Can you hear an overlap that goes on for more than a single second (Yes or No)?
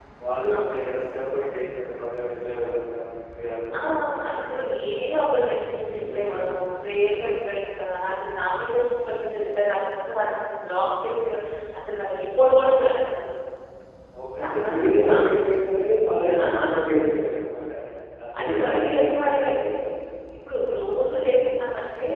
Yes